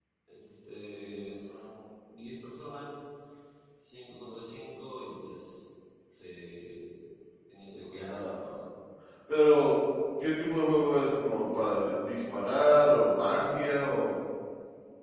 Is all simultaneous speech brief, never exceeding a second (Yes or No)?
Yes